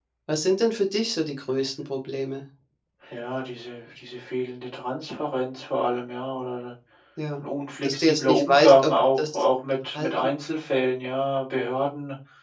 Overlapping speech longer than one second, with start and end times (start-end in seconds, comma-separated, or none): 7.8-9.4